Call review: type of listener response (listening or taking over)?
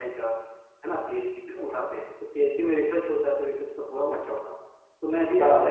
listening